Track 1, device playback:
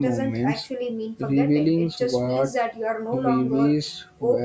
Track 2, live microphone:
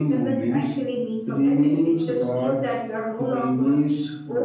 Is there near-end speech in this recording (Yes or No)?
No